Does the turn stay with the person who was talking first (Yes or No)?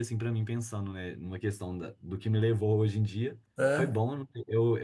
Yes